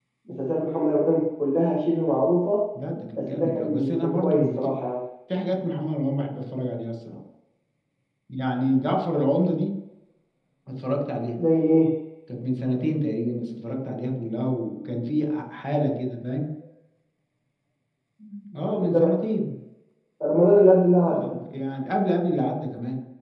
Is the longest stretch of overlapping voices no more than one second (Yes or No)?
No